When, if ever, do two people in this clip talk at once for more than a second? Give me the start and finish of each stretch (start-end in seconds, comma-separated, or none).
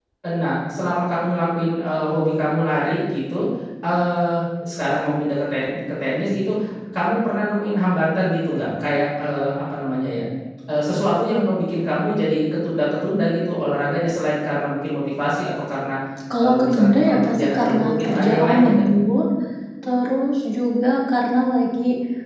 16.4-18.8